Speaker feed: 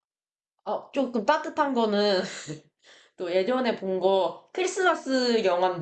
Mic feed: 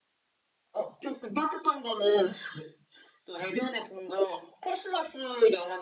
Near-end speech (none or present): none